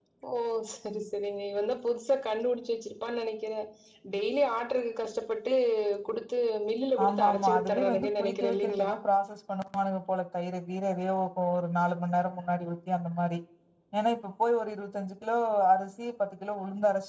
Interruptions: present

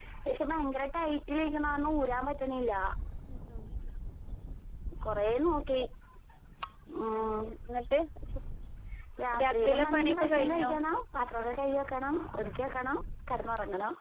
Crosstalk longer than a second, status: present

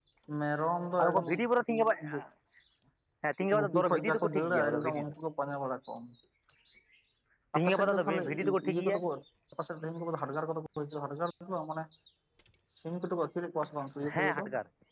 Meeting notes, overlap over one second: present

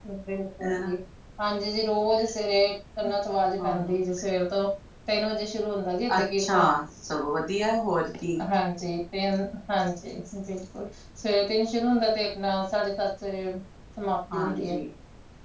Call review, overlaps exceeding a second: none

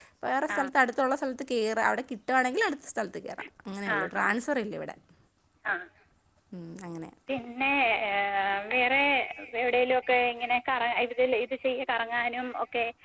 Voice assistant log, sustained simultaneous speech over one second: none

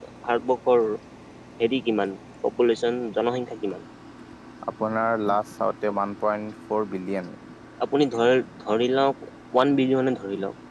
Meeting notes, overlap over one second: none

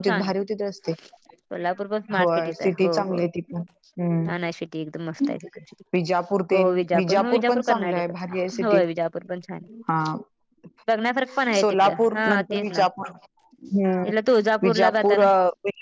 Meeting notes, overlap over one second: present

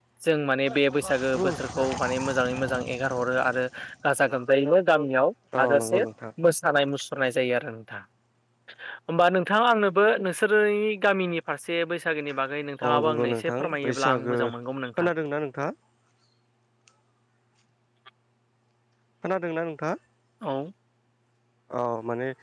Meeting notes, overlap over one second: present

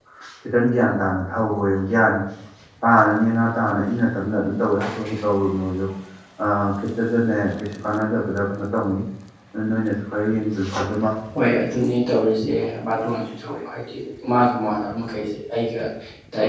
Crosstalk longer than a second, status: none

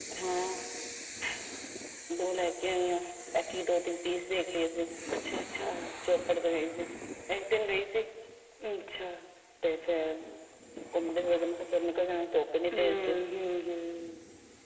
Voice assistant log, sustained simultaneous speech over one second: none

